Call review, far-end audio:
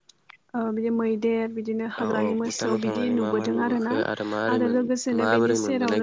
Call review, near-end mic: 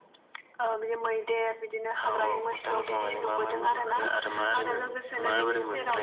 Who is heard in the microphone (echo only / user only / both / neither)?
echo only